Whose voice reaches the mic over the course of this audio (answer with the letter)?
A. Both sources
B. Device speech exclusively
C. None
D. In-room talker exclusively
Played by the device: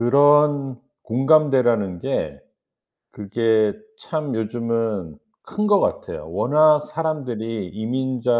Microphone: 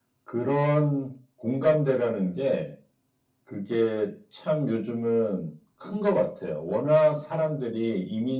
B